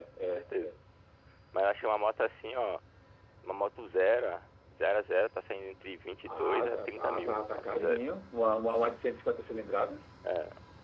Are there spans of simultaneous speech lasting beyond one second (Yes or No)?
Yes